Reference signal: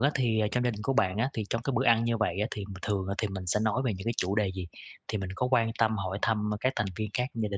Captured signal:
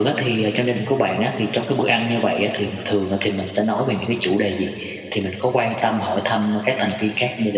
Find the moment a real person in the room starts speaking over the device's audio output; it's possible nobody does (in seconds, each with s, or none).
none